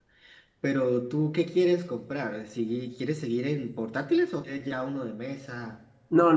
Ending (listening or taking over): taking over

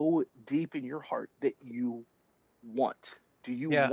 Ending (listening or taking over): taking over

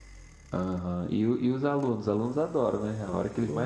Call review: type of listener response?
taking over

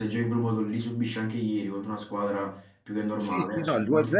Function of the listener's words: taking over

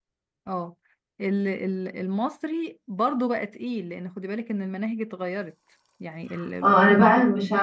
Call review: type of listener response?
taking over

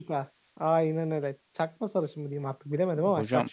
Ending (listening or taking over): taking over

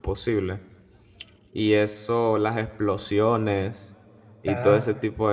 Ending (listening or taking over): listening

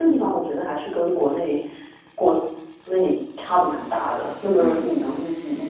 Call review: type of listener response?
listening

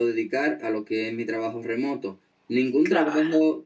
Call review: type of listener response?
listening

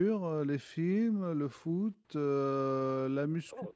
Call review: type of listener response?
listening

